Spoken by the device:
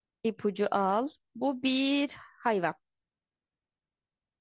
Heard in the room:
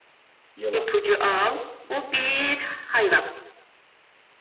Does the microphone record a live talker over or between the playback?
Yes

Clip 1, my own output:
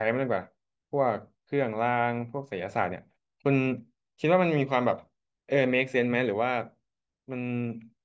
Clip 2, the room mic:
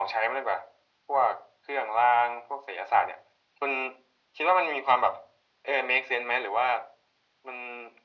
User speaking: No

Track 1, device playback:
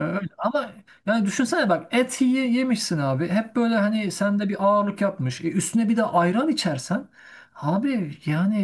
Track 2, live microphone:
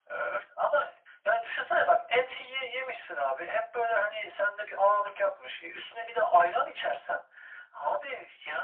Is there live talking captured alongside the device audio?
No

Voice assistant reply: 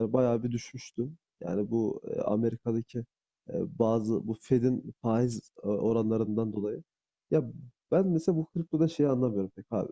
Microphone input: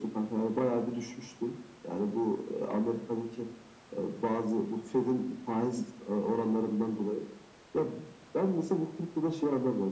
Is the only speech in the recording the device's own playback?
Yes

